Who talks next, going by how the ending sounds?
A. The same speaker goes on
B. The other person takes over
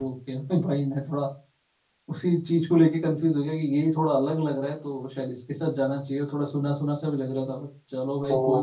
B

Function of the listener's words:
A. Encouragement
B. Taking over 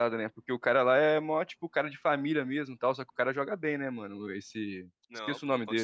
B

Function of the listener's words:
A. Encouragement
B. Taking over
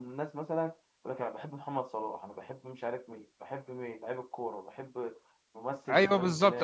B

